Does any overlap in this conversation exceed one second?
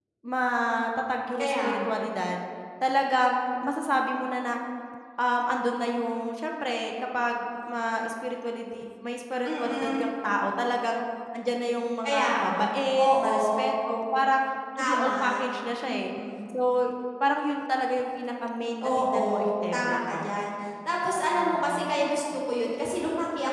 Yes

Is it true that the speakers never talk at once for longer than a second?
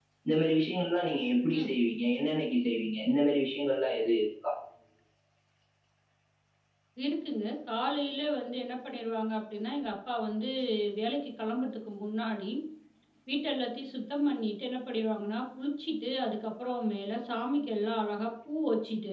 Yes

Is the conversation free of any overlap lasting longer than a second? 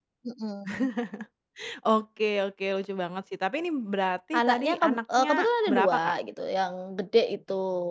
No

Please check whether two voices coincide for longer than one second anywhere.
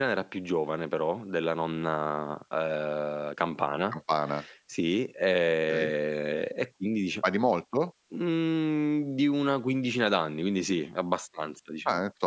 No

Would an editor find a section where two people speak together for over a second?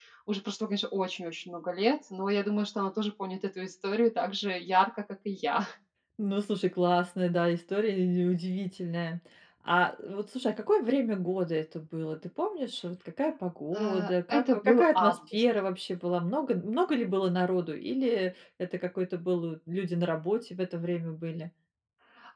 Yes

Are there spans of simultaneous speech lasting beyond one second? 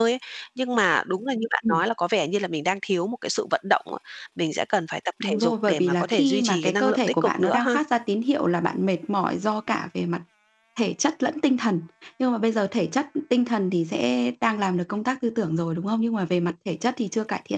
Yes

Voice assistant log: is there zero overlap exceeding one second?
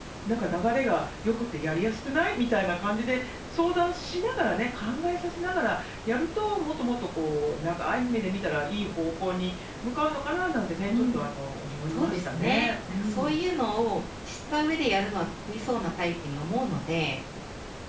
No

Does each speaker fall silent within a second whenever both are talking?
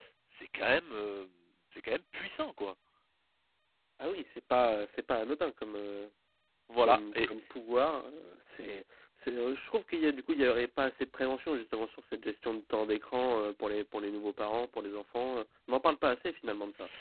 Yes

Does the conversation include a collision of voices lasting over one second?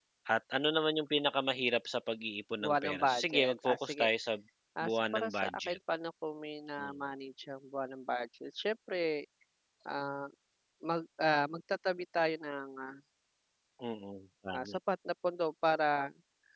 Yes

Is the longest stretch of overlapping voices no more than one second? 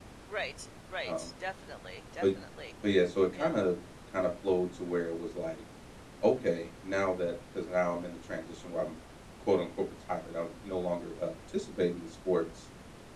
Yes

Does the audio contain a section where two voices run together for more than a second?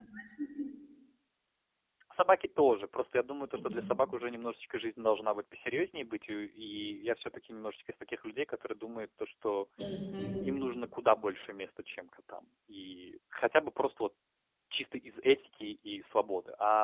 No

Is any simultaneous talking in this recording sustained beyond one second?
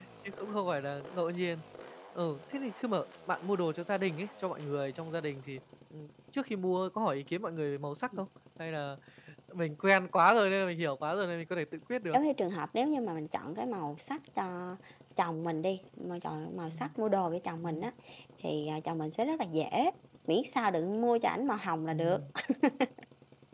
No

